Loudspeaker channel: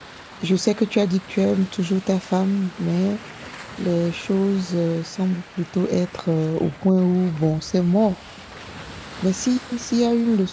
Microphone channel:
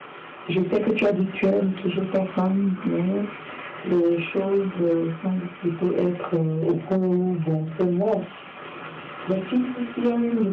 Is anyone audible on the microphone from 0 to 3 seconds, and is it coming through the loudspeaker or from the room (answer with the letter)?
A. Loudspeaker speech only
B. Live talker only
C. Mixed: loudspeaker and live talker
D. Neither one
A